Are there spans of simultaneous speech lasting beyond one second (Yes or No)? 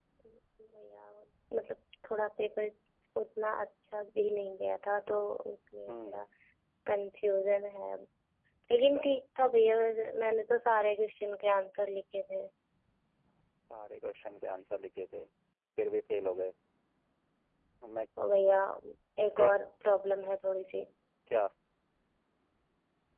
No